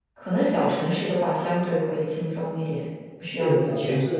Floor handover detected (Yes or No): Yes